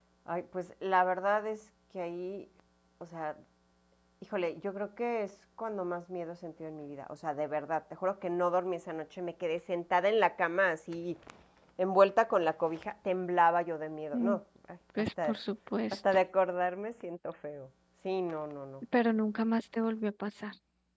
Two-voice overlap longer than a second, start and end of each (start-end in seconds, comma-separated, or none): none